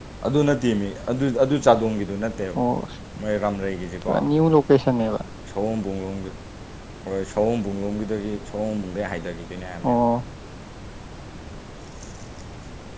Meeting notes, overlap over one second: none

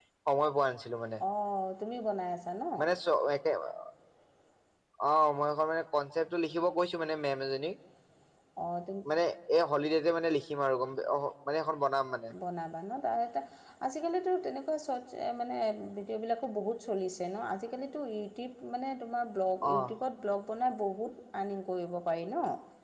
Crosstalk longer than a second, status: none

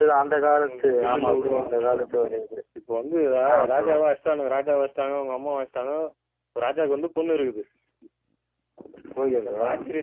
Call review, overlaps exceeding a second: present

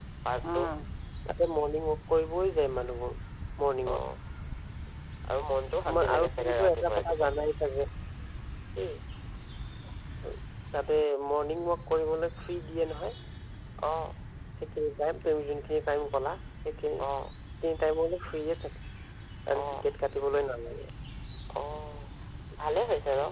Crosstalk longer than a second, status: present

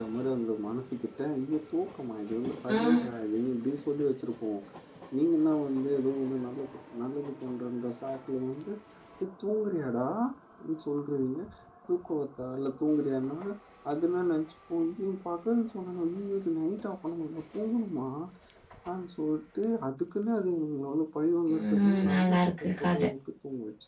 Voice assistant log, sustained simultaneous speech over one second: present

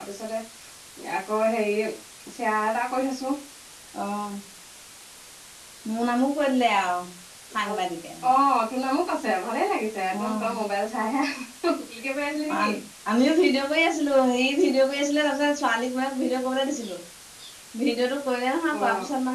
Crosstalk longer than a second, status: none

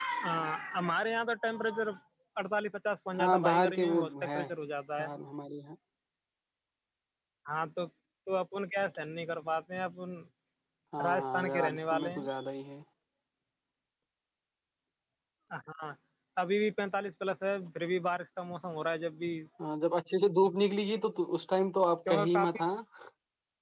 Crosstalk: present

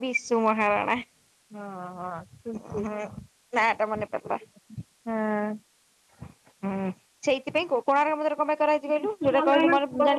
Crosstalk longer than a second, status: present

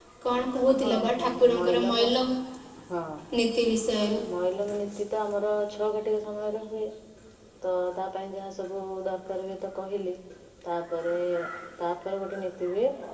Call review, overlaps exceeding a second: present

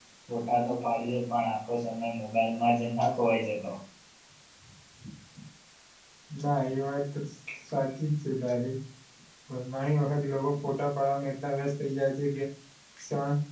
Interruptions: none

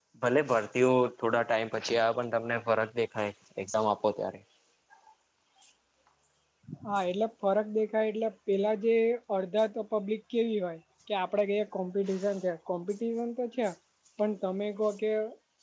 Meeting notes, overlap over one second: none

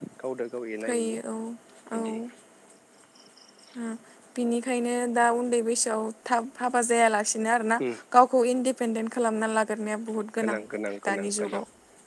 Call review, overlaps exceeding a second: none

